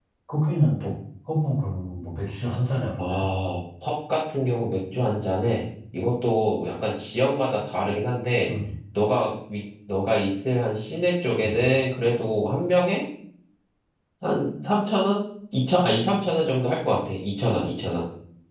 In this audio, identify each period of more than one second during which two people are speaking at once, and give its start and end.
none

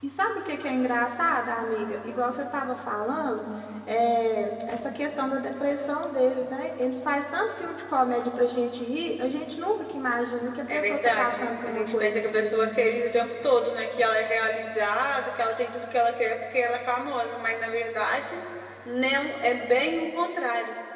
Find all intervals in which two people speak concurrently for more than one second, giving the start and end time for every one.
10.7-12.6

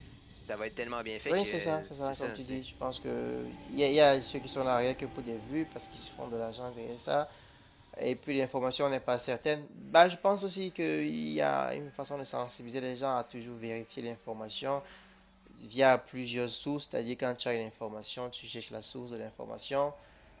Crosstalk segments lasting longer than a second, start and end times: 1.3-2.6

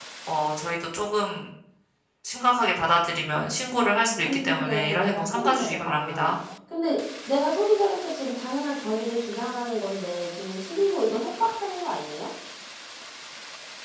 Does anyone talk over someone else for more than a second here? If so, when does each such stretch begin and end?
4.2-6.3

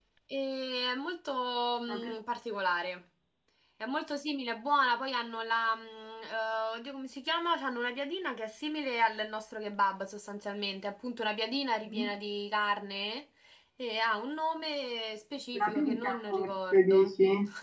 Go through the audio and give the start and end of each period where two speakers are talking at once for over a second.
15.6-17.0

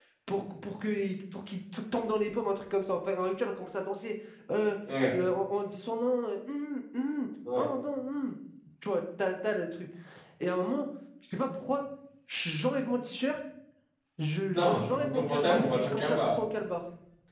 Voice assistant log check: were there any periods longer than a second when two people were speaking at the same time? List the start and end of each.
14.6-16.3

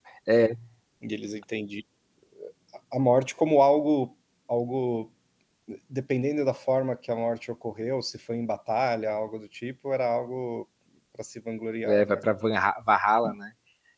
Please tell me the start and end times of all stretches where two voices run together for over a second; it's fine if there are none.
none

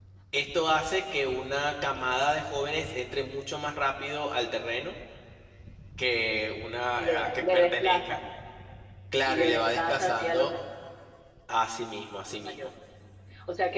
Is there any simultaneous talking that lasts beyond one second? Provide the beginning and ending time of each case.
7.0-8.2, 9.3-10.5

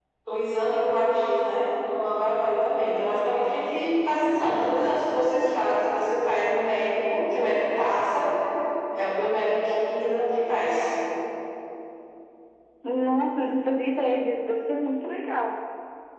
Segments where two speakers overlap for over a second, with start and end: none

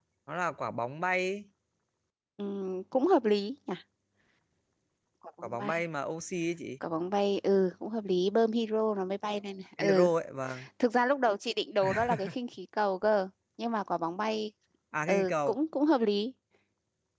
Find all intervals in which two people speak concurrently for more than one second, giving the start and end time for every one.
none

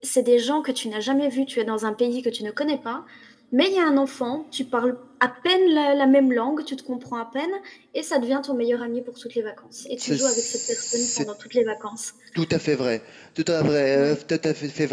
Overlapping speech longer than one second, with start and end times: 10.0-11.2

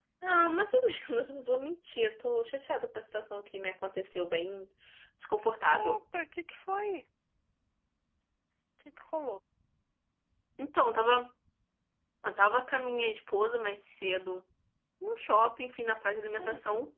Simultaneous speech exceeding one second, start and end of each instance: none

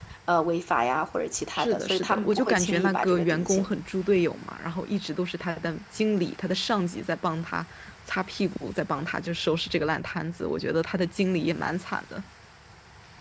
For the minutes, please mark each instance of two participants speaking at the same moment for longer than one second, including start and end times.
1.6-3.7

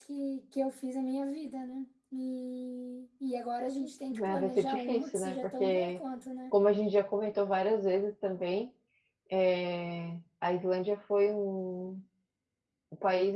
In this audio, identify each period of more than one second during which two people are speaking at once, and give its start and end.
4.1-6.0

